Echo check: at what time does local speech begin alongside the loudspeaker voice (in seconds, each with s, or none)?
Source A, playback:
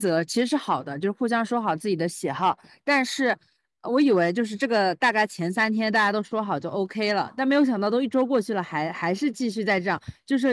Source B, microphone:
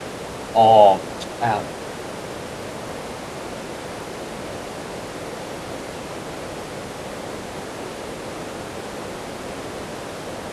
0.5 s